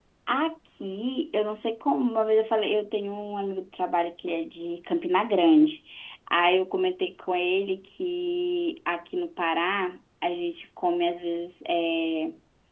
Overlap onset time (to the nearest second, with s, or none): none